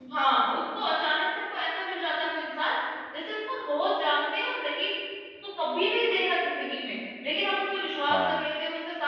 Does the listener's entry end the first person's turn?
No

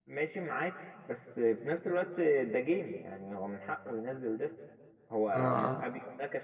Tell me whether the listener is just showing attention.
Yes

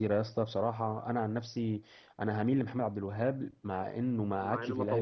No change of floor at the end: No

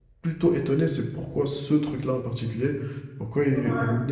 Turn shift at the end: No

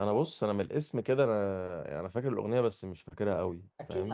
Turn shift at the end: Yes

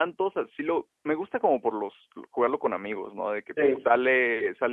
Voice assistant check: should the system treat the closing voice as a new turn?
No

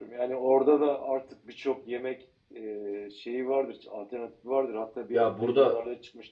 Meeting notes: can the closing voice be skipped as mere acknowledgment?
Yes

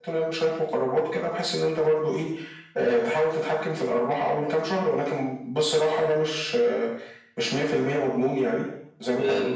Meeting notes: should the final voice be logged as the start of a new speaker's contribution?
No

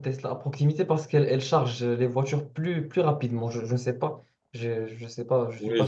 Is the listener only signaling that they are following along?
No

